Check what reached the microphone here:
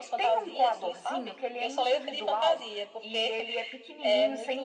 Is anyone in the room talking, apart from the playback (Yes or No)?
No